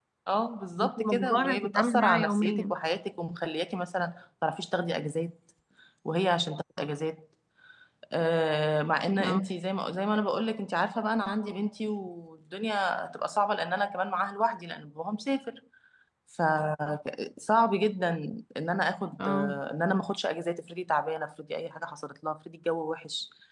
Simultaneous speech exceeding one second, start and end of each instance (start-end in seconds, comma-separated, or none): 0.8-2.7